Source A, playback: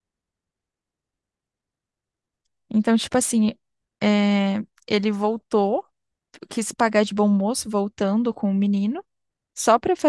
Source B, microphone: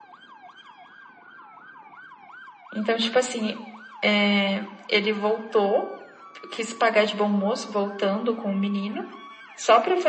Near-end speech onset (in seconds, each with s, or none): none